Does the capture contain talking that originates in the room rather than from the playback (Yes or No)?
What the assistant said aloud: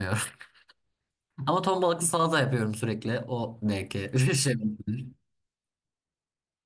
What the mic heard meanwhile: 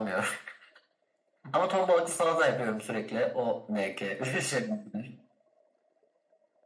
No